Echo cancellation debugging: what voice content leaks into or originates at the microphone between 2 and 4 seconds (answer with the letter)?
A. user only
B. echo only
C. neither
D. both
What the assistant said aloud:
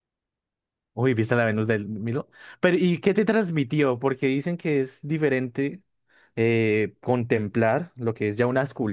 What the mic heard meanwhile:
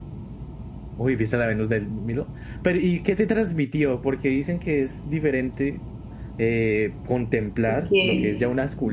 B